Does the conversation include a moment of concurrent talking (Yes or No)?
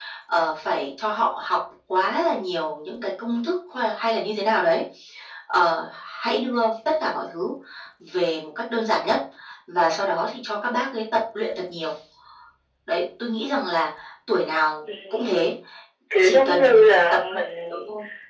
Yes